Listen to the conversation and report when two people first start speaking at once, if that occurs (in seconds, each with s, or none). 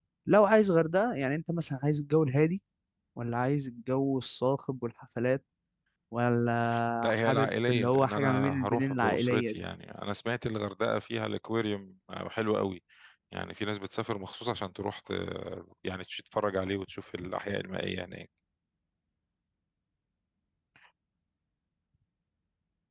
7.0 s